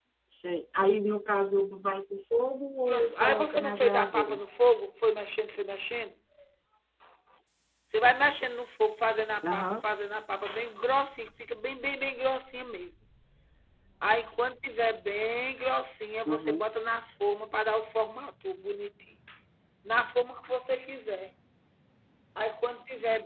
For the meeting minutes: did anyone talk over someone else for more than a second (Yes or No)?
Yes